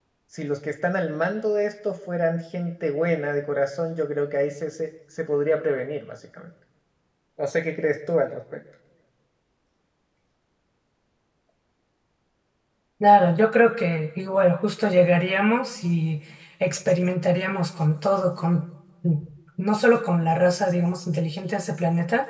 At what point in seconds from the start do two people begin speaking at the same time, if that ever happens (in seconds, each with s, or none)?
none